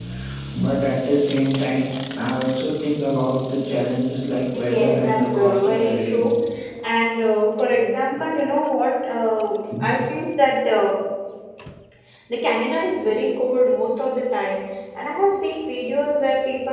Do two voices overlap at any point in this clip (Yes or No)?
Yes